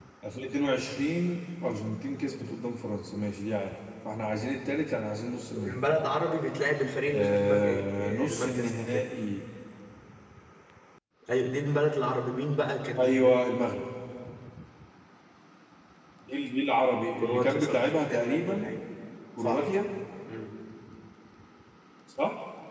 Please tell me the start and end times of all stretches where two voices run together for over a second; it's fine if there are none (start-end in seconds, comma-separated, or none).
7.1-9.1, 17.2-18.7